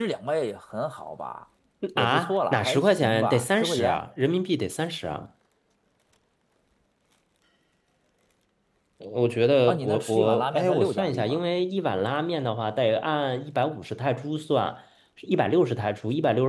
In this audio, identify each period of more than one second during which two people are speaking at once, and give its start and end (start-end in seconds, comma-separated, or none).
1.9-4.0, 9.7-11.4